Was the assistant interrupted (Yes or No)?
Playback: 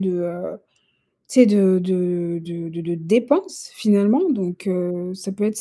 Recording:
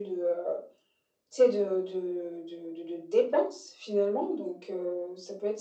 No